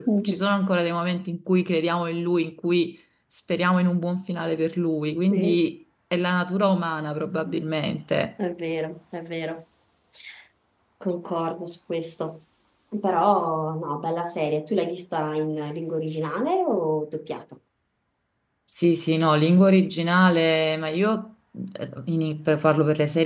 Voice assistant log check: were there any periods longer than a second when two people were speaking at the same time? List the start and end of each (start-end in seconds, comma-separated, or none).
none